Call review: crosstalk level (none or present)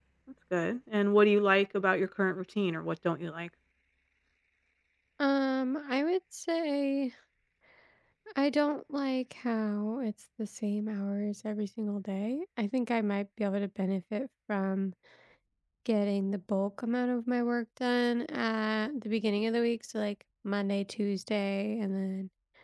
none